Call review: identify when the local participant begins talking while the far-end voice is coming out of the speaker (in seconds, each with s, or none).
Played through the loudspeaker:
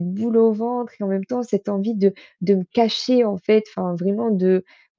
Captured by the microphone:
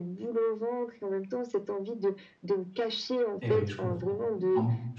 3.4 s